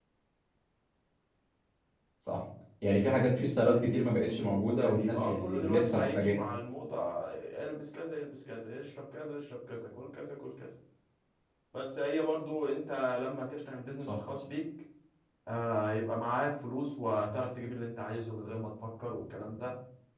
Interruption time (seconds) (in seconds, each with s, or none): 4.8 s